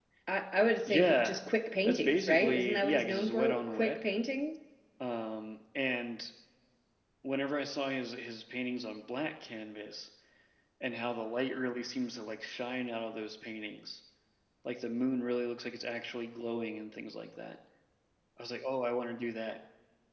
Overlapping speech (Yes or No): Yes